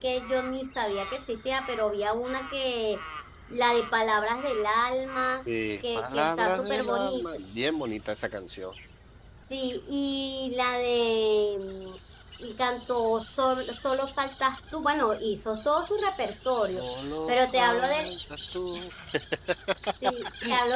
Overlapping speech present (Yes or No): Yes